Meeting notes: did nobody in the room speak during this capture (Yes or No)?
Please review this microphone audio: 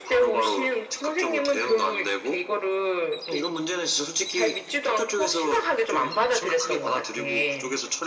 Yes